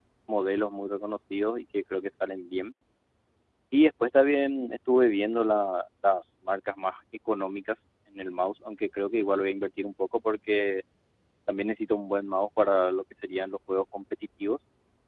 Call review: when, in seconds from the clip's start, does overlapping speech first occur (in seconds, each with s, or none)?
none